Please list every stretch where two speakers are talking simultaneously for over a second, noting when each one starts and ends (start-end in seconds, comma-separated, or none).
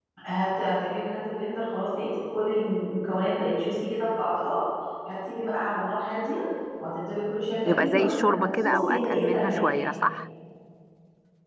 7.7-9.8